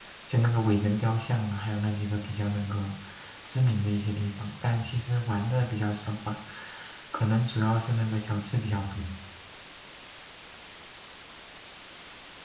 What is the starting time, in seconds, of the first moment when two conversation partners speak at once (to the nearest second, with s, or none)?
none